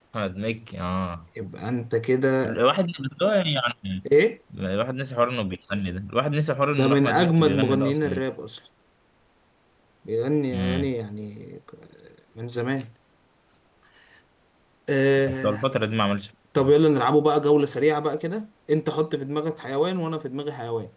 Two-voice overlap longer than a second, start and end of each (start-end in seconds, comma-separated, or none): 6.7-8.2